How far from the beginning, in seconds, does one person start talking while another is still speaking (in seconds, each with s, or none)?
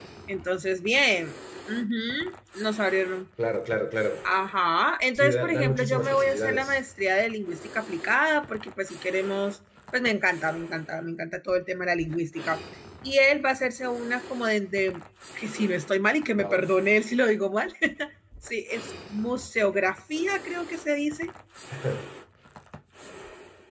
5.2 s